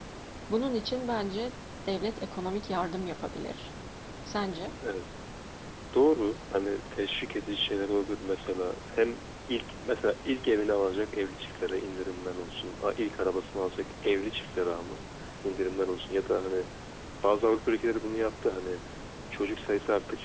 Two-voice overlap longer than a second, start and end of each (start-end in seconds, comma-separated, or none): none